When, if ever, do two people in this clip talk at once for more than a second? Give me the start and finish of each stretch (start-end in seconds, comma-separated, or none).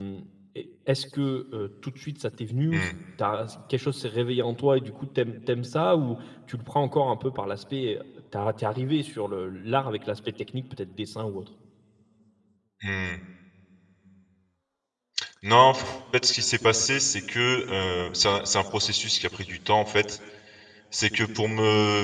none